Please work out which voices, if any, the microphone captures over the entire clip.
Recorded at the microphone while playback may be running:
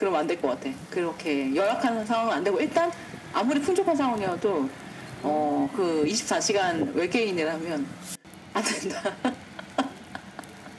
echo only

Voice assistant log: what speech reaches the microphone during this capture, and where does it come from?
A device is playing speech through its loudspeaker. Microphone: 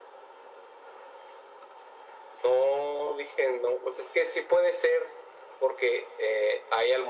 echo only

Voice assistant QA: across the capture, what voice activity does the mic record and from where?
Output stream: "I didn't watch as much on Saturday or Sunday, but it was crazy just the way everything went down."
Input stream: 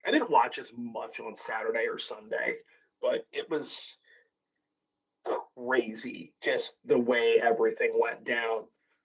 echo only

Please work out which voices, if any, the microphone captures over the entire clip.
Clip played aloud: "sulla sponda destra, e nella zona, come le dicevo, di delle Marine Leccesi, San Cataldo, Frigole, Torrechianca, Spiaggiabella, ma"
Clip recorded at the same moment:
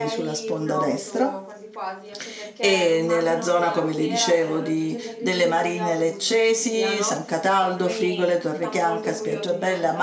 both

